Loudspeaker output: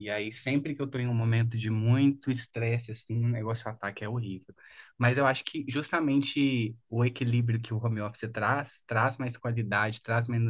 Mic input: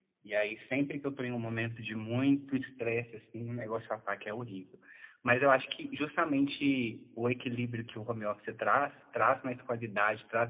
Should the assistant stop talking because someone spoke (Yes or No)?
No